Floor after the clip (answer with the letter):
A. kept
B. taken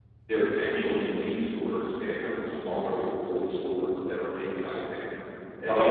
A